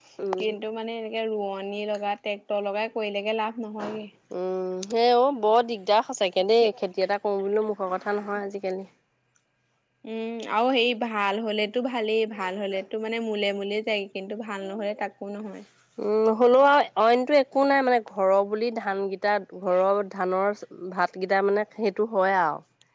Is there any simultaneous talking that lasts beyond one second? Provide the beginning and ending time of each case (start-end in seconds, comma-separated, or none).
none